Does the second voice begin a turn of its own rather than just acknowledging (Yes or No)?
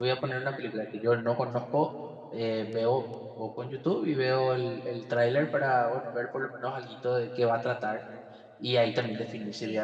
No